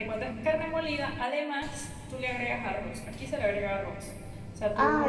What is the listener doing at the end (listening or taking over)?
listening